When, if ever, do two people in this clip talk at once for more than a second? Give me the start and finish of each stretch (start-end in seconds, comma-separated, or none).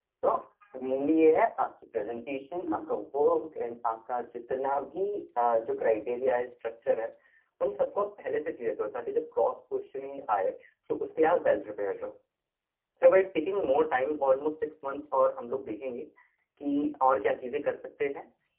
none